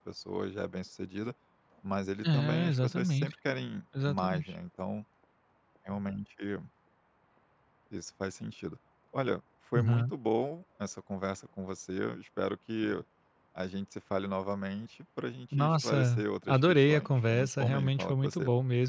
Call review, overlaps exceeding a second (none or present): present